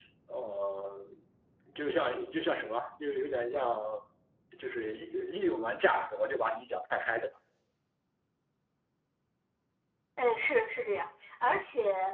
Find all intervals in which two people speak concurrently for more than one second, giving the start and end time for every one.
none

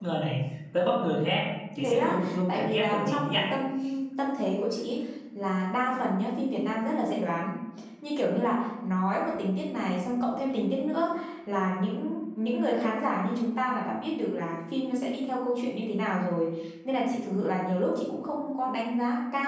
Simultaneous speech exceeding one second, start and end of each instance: 1.8-3.4

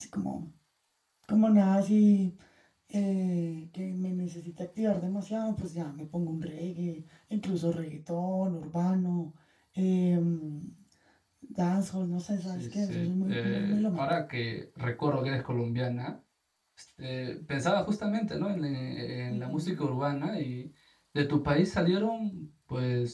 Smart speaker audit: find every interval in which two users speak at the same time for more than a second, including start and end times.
12.6-14.2

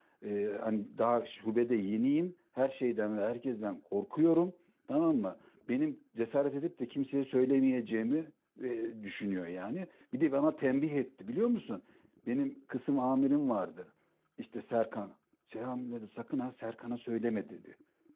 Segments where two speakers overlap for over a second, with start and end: none

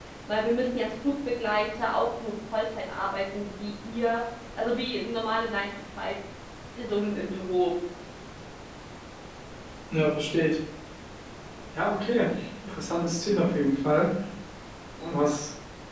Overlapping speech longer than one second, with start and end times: none

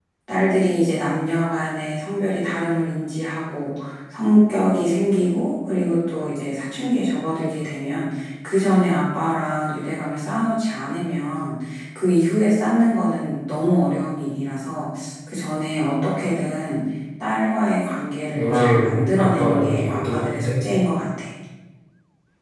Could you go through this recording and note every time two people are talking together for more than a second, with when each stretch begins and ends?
18.3-20.5

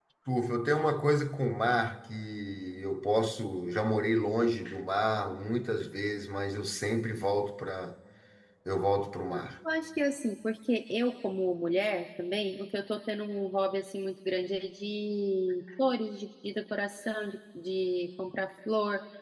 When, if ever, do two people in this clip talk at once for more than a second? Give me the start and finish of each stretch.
none

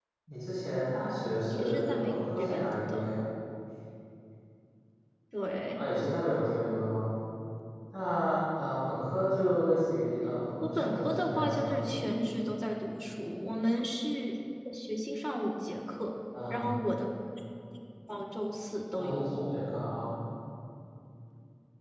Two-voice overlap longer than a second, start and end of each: 1.5-3.0, 10.6-11.9

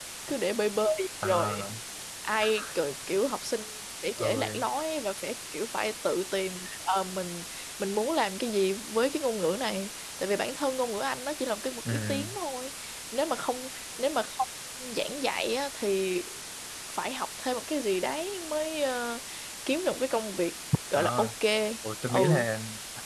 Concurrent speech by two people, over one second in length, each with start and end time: none

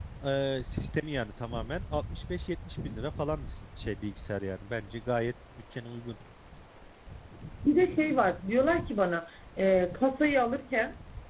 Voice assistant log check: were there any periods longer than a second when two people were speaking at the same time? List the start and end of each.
none

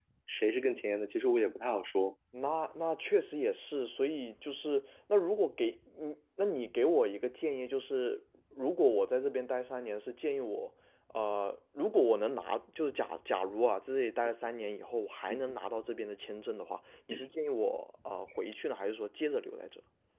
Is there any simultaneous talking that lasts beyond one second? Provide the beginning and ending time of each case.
none

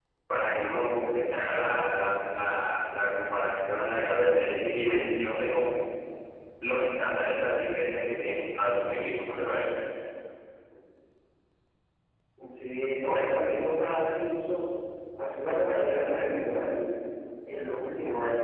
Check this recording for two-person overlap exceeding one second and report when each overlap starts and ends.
none

